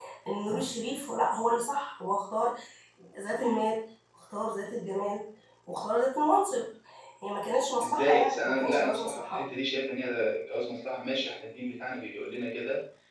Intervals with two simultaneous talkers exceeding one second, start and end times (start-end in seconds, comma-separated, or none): 7.8-9.4